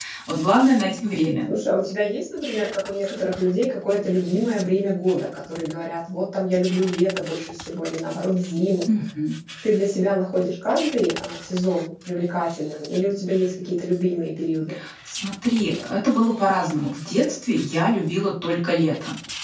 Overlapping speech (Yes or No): No